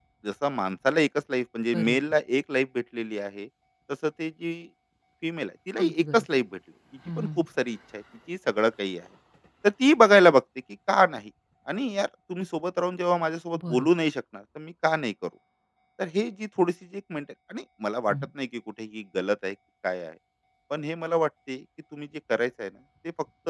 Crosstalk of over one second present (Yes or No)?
No